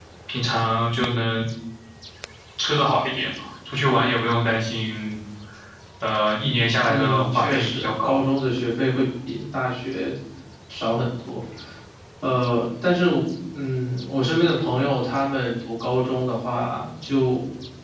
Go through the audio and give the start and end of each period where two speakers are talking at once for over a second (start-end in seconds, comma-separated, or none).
6.9-8.2